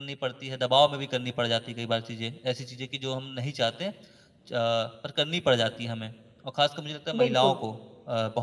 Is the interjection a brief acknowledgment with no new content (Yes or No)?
Yes